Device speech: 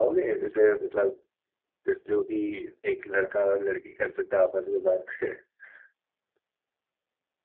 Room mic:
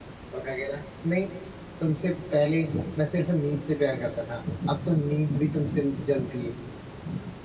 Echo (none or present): none